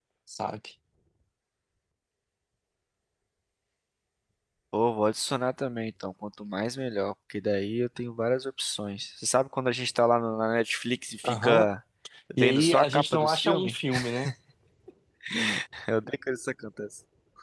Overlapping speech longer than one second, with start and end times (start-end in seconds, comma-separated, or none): 12.4-13.7